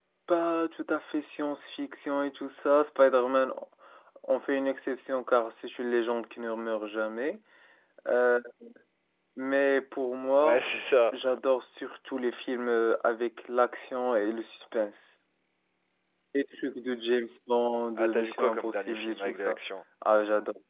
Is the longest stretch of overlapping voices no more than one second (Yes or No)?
No